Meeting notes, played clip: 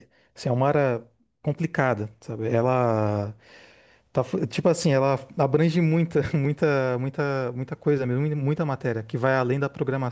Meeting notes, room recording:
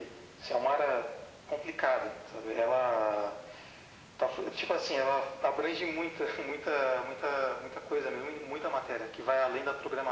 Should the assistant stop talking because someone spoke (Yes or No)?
No